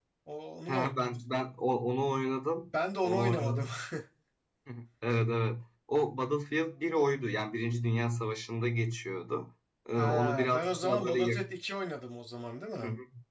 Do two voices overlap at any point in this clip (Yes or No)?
Yes